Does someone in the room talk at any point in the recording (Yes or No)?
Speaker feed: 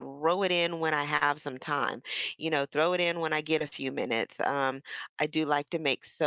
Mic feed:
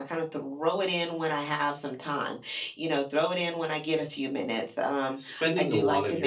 Yes